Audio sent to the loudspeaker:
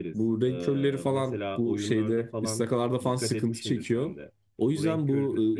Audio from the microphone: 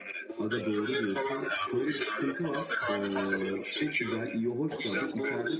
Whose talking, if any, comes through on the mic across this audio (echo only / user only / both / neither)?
both